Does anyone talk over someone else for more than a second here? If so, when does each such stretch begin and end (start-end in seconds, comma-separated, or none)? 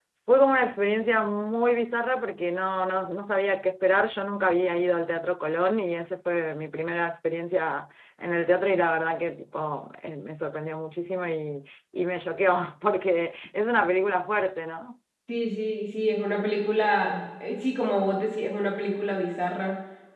none